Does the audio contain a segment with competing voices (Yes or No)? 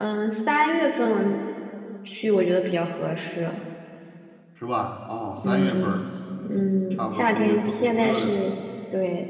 Yes